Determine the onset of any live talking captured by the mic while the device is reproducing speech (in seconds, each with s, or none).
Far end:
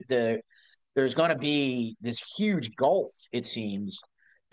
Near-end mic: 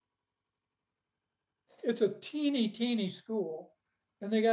1.8 s